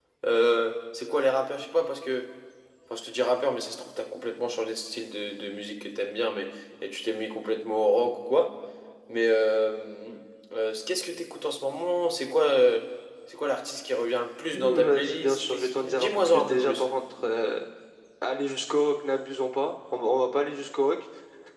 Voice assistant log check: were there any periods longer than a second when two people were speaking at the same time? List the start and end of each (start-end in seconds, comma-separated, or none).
14.5-16.8